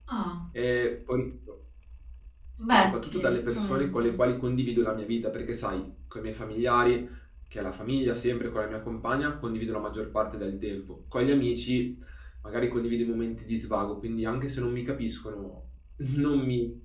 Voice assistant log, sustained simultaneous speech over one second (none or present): present